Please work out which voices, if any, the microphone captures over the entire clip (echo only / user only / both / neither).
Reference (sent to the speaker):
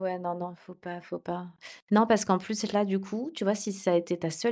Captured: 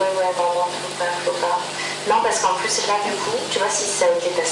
echo only